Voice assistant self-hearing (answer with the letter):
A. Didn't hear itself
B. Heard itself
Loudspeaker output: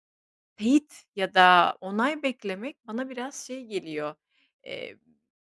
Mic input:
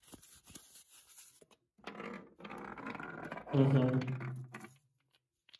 A